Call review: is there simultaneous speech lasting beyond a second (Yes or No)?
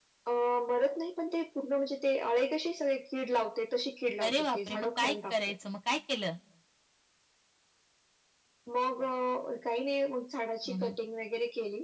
Yes